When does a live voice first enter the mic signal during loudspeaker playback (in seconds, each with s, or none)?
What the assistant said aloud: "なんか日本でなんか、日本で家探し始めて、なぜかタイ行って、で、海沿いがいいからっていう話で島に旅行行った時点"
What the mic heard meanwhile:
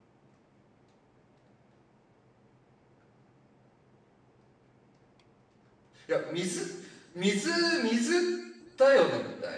6.1 s